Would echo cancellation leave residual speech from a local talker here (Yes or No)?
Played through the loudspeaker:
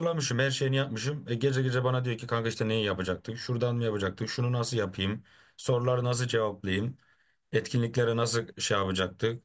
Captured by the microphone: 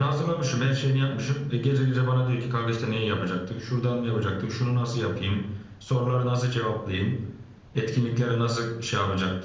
No